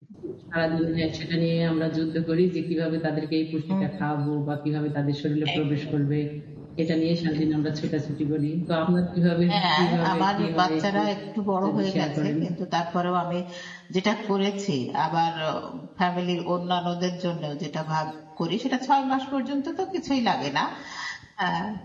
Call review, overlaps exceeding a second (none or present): present